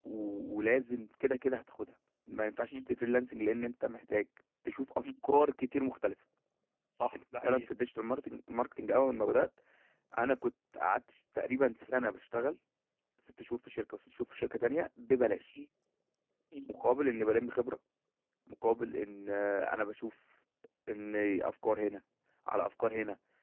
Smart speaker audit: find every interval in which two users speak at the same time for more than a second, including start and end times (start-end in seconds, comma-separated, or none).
none